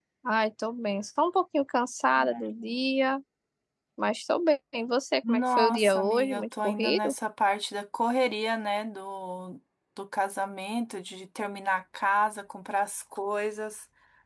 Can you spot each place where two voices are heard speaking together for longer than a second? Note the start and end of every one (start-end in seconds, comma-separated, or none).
5.3-7.1